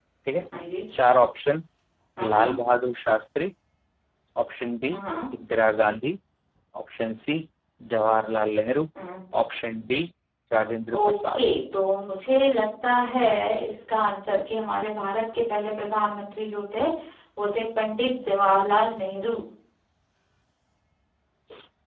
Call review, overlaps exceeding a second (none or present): none